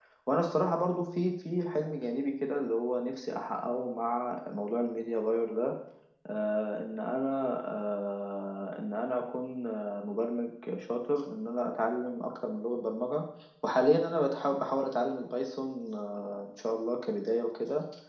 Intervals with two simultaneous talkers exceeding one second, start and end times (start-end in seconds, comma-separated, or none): none